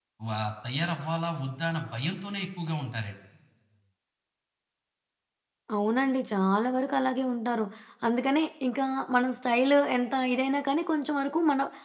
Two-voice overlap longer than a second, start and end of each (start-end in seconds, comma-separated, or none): none